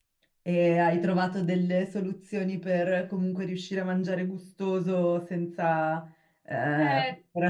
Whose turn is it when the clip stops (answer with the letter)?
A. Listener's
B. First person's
B